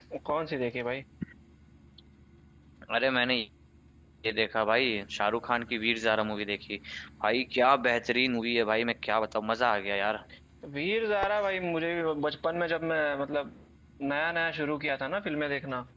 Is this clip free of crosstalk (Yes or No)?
Yes